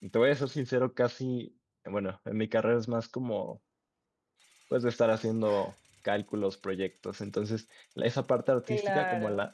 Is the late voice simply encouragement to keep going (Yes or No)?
Yes